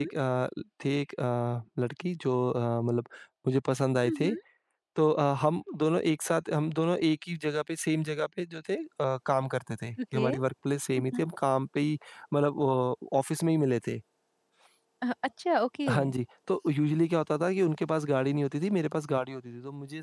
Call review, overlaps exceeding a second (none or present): none